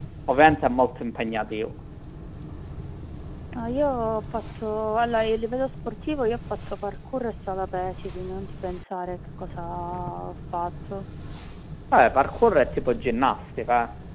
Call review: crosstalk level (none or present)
none